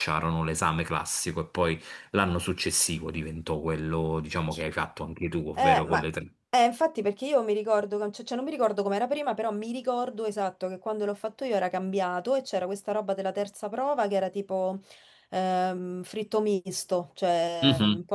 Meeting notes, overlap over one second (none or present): none